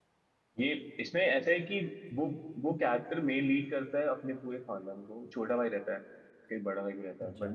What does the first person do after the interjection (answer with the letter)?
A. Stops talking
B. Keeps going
B